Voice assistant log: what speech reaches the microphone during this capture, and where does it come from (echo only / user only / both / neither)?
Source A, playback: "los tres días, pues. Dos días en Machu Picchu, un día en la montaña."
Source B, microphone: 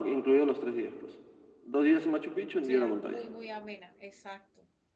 both